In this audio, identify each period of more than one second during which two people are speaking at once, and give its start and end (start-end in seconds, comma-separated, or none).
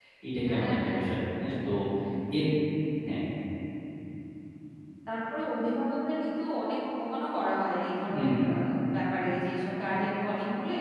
none